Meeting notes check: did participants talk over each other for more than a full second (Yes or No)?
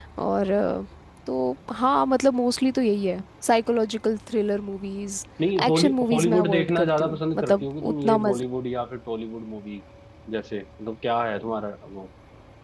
Yes